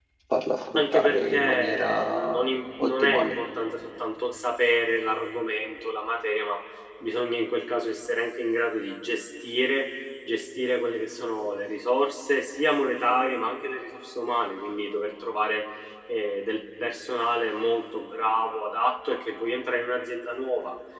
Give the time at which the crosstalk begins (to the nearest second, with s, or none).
1 s